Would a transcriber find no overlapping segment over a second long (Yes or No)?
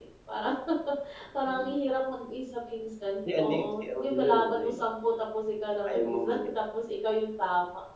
No